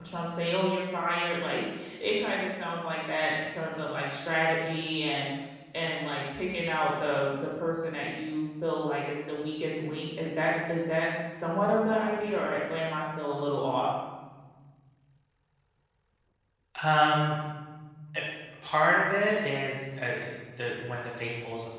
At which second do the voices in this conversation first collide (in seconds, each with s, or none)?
none